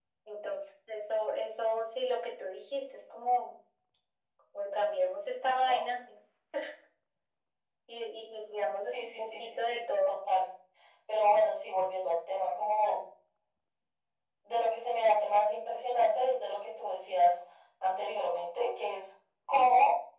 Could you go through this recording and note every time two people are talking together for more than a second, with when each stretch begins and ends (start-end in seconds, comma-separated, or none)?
8.8-10.2